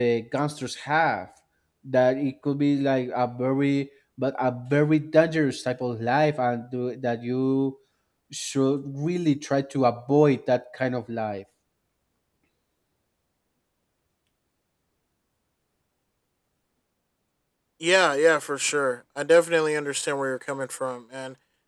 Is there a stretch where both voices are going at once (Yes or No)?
No